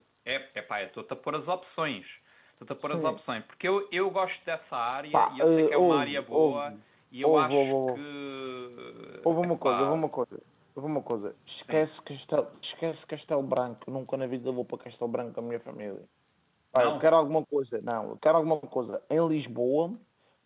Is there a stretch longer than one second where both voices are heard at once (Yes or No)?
Yes